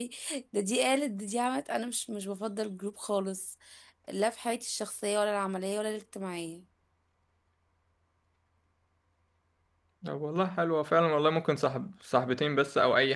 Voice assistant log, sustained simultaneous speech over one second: none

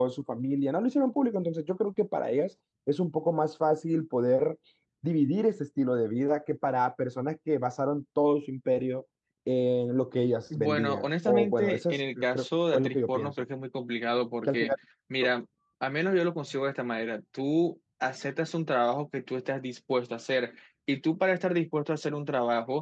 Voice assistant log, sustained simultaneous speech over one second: present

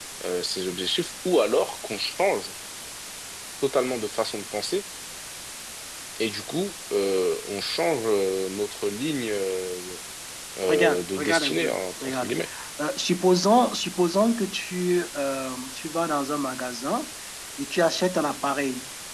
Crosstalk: present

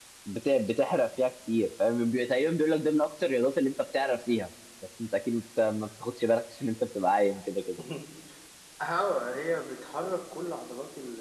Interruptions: none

